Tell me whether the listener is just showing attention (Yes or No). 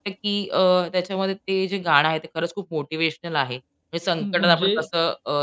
Yes